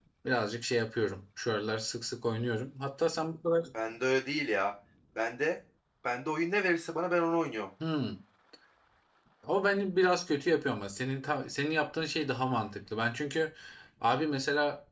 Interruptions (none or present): none